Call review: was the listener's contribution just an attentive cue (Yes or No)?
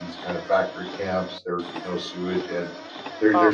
Yes